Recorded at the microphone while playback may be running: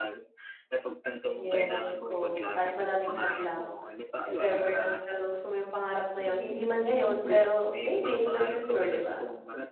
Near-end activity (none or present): present